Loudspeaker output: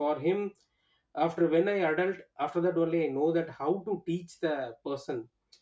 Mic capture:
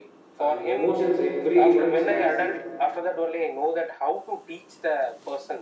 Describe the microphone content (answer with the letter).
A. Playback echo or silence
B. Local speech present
B